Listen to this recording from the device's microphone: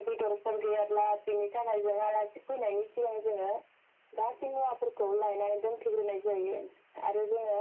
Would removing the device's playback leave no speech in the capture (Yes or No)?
Yes